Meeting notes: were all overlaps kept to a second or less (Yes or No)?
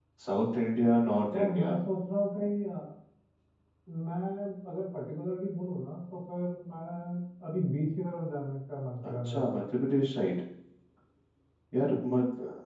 Yes